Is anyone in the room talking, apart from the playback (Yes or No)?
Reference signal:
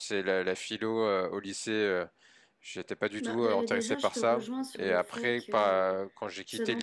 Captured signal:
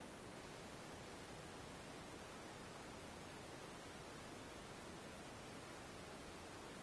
No